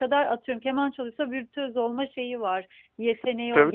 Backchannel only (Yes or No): No